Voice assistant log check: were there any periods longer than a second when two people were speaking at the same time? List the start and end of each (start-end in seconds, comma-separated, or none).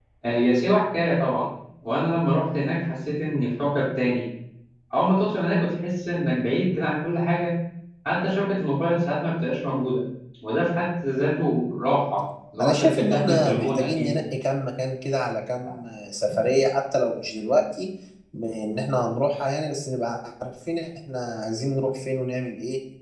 12.6-14.2